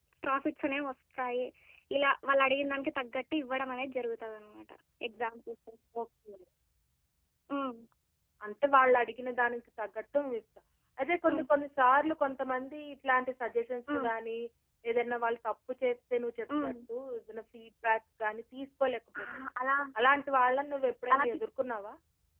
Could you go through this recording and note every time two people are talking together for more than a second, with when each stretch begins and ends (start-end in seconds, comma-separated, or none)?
none